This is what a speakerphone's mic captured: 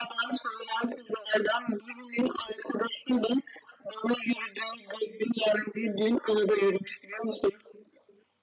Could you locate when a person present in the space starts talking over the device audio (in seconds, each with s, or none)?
none